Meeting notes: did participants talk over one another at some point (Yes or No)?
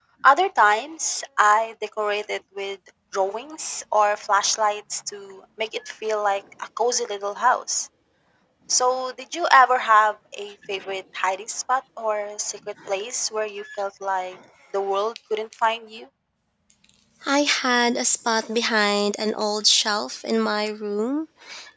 No